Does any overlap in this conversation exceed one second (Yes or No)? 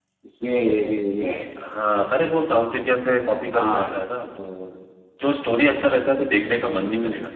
No